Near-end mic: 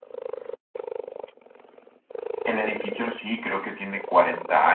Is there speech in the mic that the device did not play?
Yes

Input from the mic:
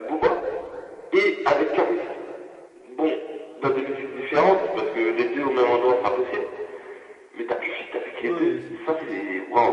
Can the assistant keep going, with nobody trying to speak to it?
No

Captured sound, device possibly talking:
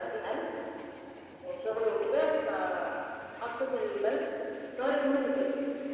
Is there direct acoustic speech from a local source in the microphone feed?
No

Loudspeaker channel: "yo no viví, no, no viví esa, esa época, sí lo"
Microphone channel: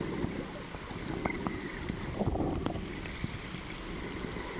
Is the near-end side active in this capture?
No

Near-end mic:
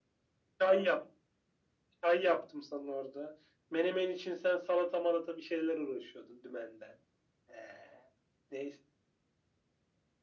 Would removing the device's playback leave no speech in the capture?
Yes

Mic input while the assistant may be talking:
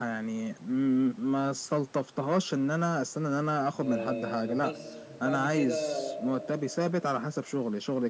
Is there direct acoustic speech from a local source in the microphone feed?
Yes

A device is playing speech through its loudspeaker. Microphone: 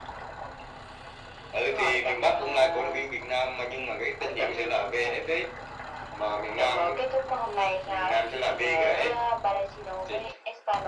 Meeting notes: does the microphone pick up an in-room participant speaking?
No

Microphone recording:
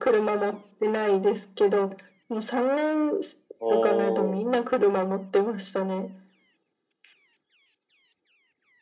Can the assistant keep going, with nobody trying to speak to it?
No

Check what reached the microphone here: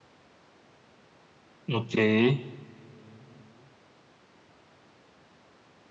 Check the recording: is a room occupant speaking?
Yes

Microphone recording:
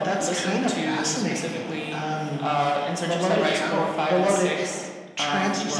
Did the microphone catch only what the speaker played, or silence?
Yes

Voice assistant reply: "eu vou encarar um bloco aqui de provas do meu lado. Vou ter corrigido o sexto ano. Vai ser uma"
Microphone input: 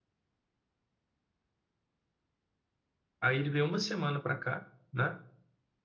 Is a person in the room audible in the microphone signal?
Yes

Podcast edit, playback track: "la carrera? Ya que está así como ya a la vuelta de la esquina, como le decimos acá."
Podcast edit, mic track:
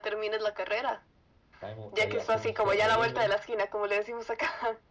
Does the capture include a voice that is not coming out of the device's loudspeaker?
Yes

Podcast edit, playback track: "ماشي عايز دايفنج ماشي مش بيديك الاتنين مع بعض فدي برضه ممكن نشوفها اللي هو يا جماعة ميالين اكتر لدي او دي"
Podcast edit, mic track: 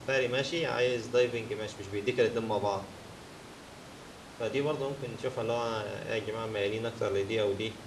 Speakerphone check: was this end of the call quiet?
Yes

